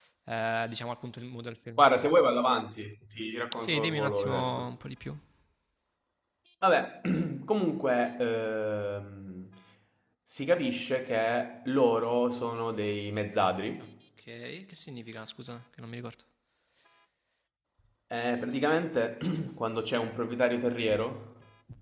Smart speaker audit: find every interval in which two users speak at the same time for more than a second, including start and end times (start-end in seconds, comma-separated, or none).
3.6-4.8